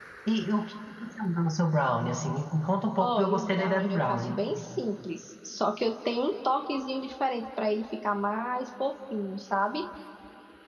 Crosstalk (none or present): present